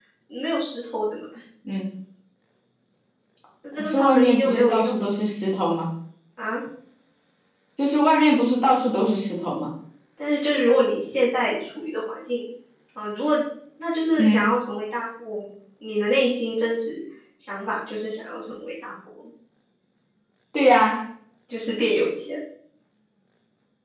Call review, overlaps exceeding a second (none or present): present